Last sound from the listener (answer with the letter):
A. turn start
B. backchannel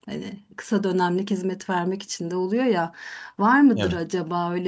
B